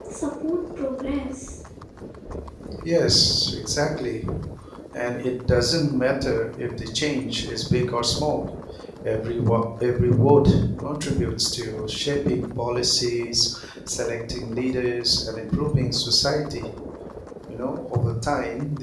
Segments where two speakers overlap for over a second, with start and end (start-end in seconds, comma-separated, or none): none